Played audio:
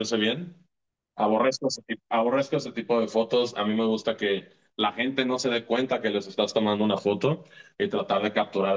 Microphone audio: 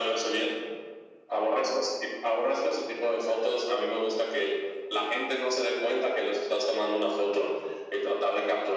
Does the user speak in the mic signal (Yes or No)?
No